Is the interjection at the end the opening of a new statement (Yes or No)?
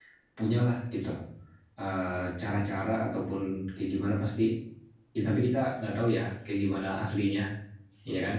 Yes